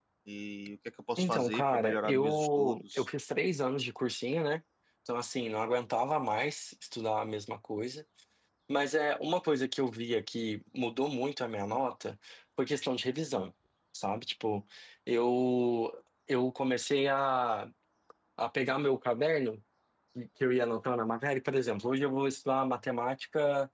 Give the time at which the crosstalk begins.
1 s

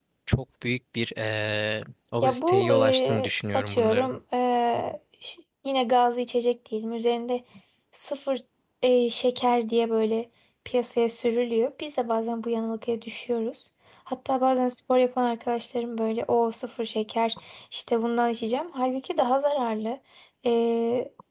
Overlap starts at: 2 s

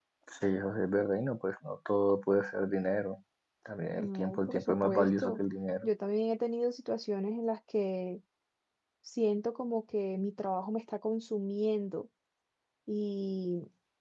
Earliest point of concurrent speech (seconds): 4 s

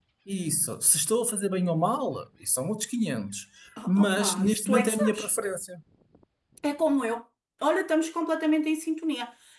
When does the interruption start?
4 s

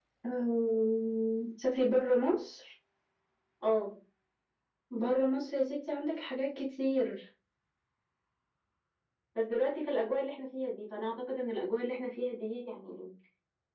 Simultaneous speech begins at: none

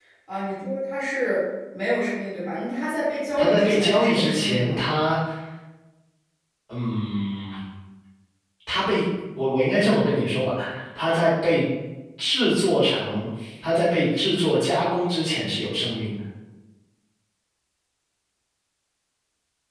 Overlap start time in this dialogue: 3 s

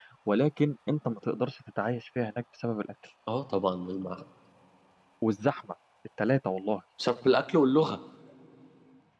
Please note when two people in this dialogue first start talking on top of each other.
none

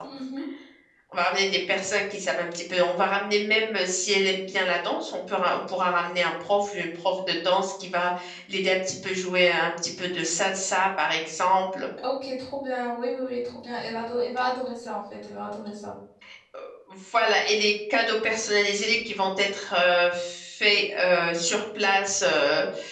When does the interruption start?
none

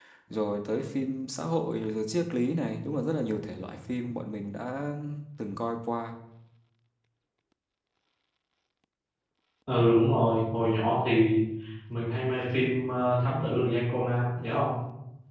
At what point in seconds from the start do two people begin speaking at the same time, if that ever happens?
none

